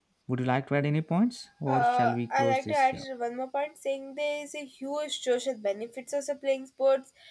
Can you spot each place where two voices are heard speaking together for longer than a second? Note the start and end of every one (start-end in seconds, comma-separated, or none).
1.7-3.0